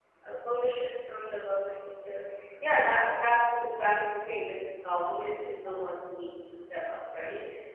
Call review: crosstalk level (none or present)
none